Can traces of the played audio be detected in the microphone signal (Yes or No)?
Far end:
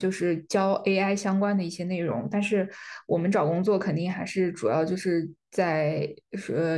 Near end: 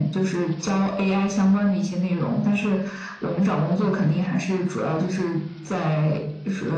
Yes